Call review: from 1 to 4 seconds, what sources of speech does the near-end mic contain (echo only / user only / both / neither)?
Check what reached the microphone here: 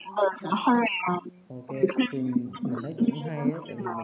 both